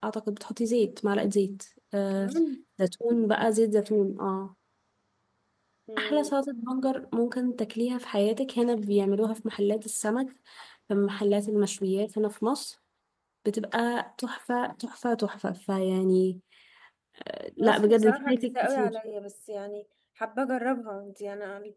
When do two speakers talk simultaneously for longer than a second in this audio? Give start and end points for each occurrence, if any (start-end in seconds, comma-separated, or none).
17.6-18.9